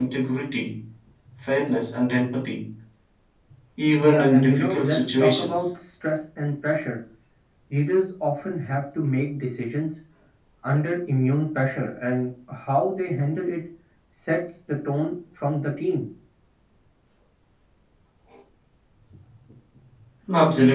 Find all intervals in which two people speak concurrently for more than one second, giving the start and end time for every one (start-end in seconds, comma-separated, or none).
4.0-5.7